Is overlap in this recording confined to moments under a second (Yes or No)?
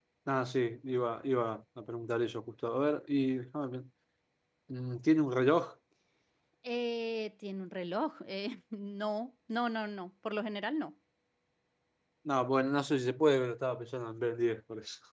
Yes